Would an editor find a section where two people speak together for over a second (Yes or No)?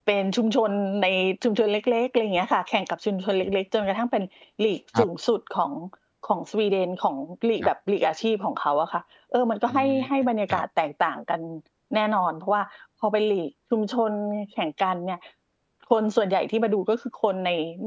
No